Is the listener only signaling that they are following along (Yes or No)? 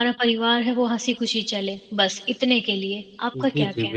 No